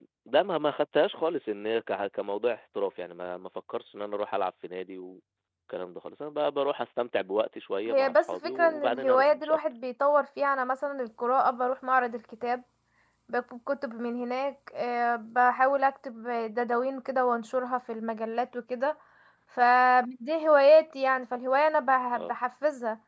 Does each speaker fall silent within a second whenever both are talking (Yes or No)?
No